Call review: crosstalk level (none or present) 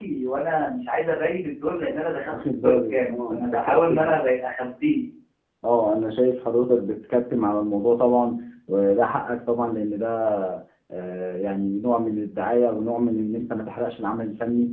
present